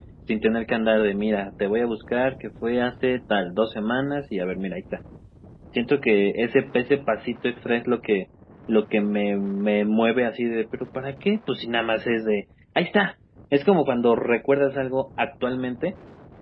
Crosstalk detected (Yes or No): No